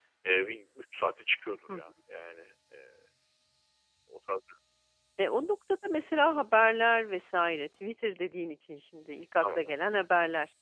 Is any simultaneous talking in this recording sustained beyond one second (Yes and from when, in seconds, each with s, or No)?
No